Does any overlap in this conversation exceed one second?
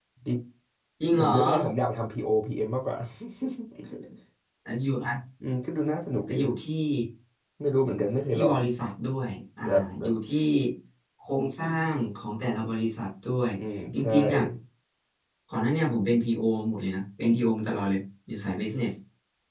No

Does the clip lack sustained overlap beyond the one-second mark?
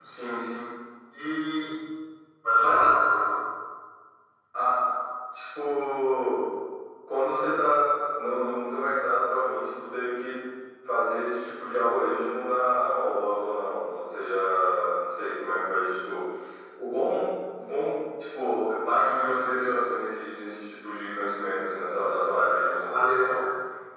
Yes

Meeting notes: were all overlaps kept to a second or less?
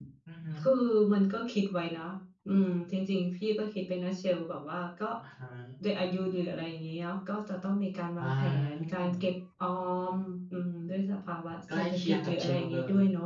No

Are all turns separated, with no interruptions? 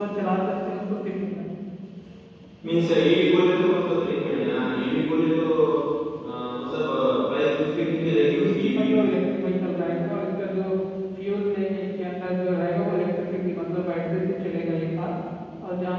No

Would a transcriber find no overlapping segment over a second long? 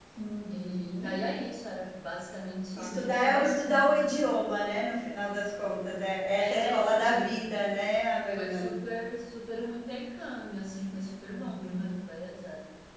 No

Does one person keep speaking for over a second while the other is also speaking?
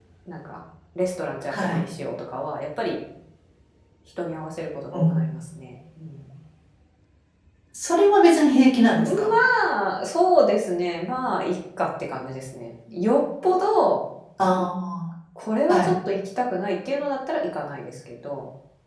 No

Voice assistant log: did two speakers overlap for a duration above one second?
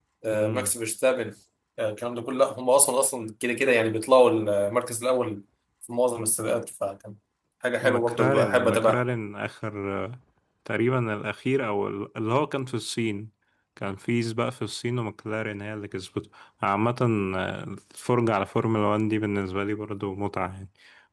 Yes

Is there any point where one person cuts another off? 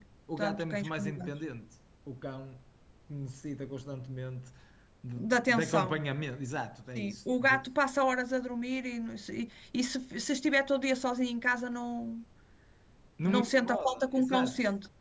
Yes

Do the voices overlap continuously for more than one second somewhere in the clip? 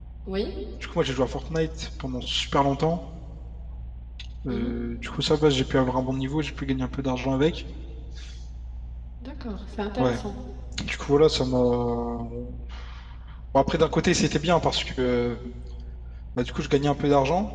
No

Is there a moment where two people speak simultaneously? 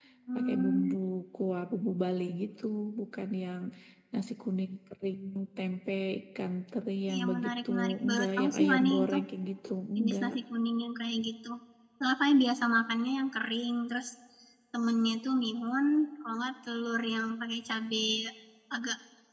Yes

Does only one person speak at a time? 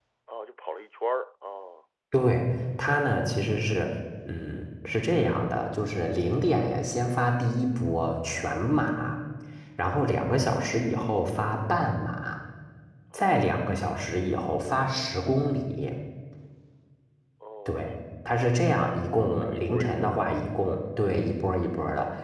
No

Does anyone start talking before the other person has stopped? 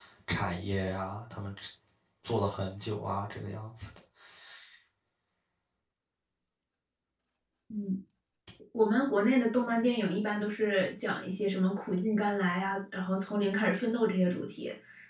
No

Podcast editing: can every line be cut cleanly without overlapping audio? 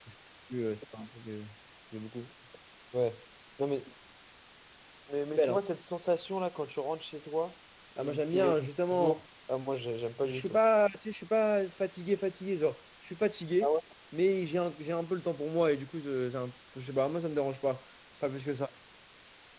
No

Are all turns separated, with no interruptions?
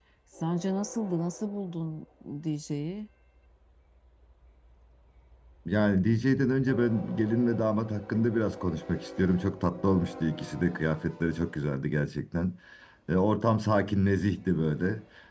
Yes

